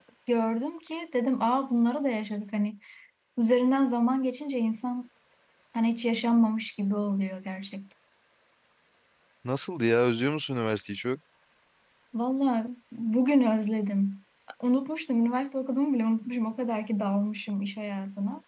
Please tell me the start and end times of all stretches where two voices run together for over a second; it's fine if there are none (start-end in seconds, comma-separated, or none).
none